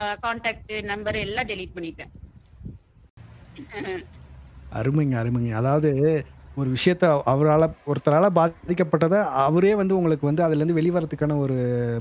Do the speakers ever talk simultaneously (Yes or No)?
No